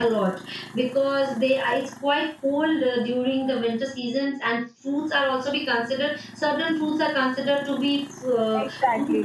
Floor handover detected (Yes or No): Yes